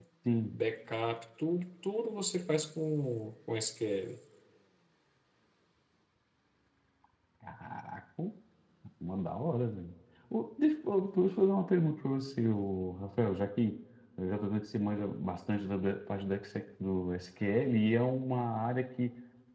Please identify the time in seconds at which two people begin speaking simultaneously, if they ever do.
none

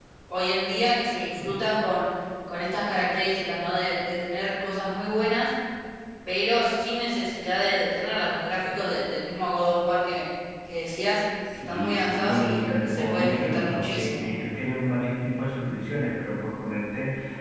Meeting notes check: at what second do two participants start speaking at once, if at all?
11.4 s

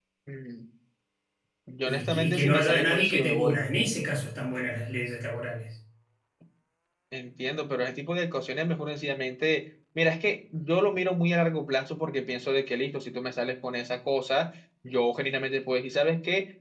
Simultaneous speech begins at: 1.9 s

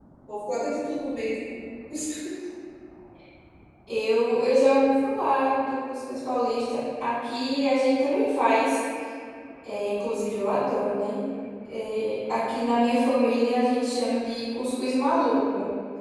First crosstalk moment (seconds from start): none

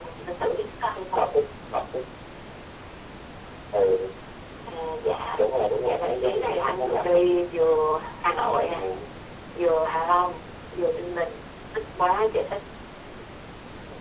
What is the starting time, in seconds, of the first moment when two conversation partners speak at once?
5.8 s

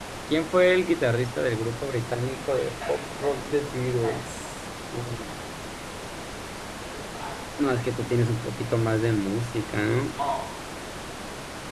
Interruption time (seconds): 2.4 s

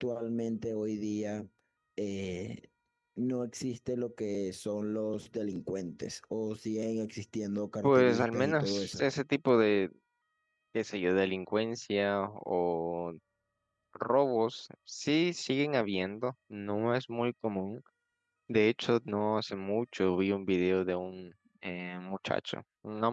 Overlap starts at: 7.8 s

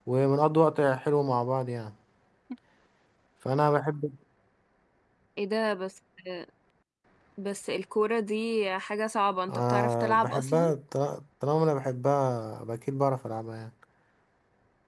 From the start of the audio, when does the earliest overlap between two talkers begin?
9.5 s

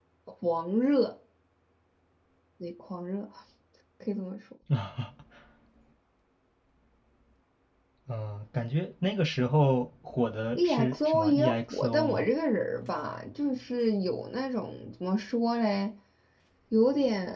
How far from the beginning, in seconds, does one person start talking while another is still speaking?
10.6 s

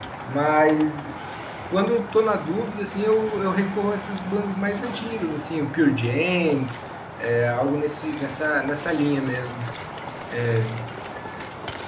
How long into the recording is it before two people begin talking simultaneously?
none

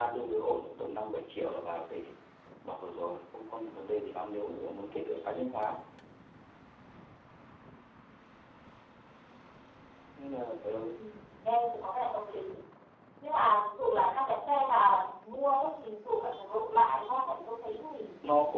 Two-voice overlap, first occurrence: none

